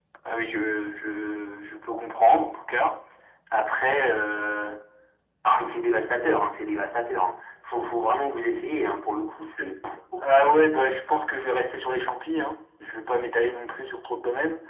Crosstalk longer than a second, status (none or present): none